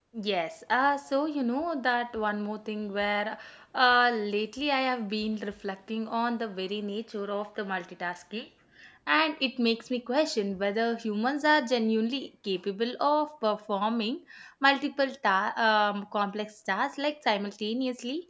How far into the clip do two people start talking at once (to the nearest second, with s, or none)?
none